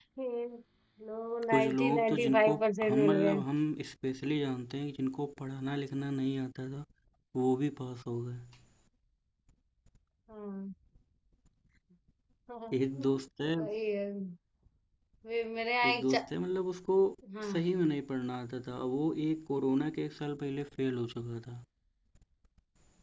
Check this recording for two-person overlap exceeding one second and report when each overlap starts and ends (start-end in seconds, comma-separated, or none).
1.5-3.4